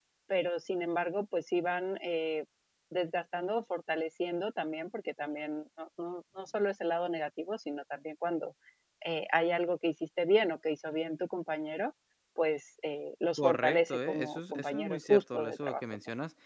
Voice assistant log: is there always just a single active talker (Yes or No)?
No